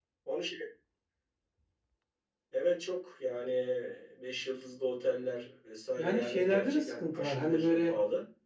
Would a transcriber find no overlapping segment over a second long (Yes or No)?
No